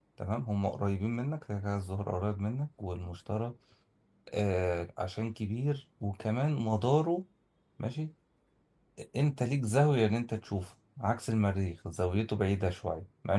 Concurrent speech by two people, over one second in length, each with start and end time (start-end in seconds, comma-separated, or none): none